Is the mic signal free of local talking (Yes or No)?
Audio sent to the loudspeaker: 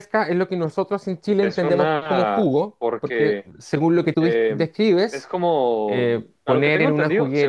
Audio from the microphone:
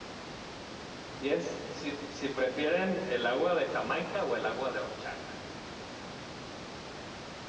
No